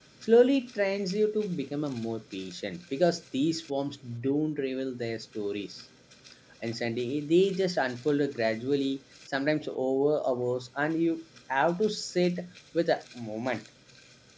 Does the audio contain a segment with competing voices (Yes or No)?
No